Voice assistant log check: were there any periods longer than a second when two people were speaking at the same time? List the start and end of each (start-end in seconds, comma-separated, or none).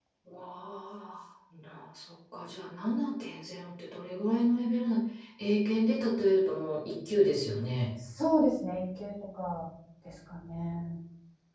none